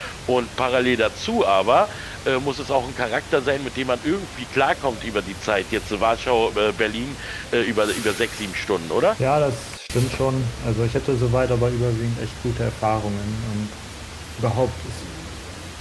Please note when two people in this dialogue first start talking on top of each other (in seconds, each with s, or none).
none